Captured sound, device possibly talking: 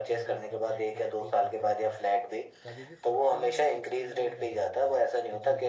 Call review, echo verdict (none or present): present